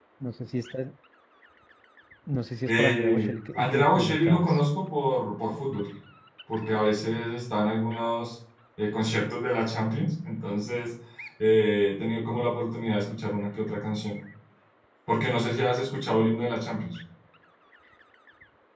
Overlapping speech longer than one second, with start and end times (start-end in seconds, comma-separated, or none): 2.7-4.6